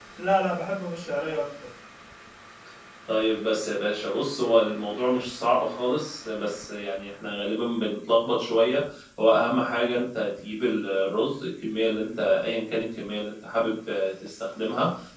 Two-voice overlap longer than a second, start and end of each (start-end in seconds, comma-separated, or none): none